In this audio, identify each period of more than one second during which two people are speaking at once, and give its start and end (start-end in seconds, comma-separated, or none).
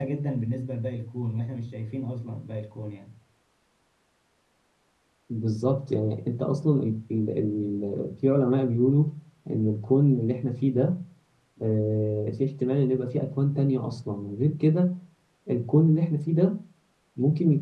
none